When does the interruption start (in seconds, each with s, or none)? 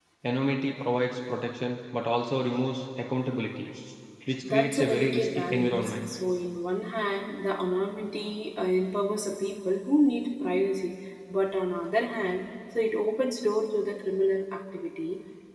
4.5 s